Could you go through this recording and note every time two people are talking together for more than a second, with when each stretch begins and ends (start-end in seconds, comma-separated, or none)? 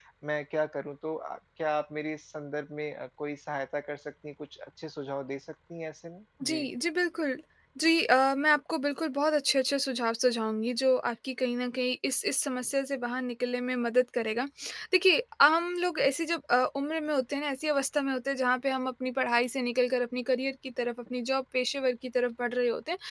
none